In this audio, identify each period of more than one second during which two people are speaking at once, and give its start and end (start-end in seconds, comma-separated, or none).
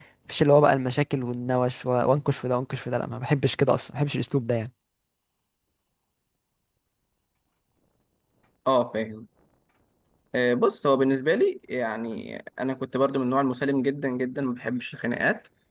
none